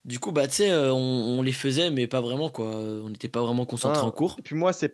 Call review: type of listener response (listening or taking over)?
taking over